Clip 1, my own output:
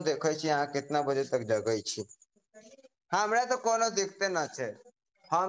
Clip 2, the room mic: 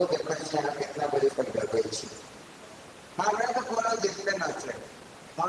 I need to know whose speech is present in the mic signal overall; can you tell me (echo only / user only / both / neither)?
echo only